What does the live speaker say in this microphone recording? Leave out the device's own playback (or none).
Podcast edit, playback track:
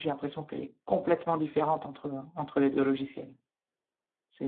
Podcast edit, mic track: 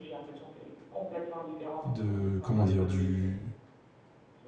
de comment dire du